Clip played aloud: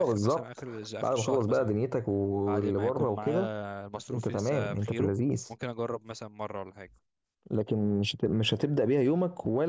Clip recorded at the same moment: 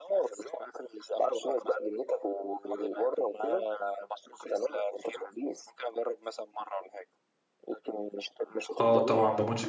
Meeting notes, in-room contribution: present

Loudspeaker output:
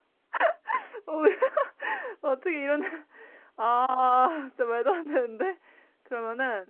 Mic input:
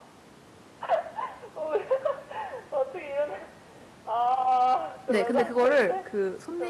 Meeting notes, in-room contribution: present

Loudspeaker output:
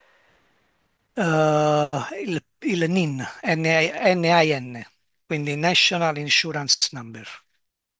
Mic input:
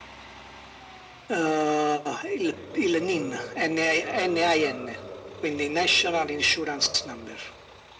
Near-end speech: present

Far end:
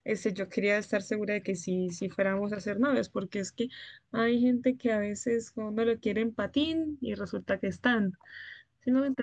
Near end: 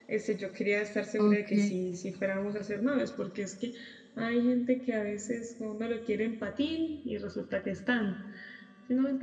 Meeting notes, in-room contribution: present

